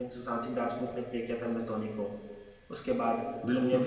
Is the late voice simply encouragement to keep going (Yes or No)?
No